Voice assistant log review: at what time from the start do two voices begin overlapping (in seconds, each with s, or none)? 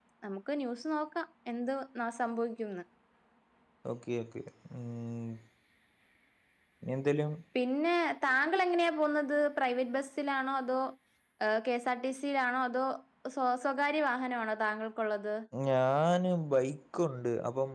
none